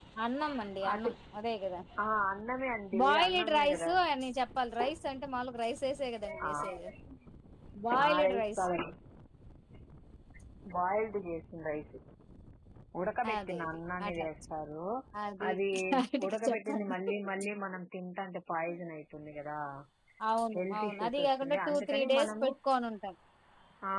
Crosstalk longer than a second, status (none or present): present